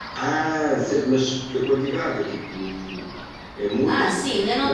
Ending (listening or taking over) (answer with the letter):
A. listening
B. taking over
B